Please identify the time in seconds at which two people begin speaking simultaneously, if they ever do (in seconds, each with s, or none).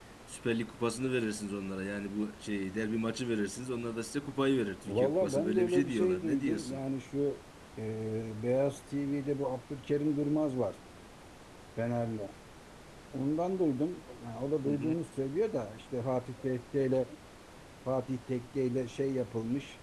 4.9 s